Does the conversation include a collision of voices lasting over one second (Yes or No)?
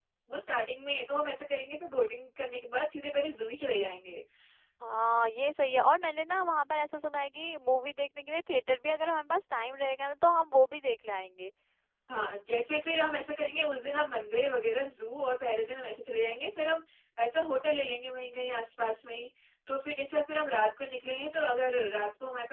No